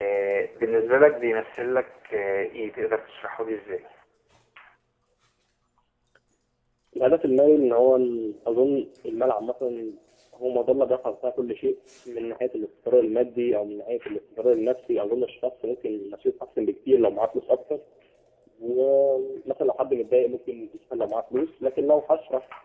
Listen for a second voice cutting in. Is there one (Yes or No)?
No